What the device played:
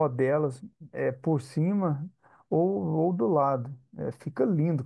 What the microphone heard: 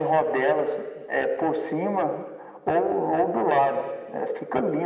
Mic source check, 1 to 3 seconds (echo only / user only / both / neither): echo only